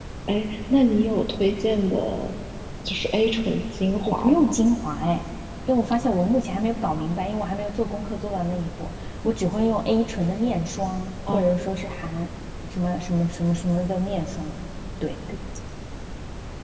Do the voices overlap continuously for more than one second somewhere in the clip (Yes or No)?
No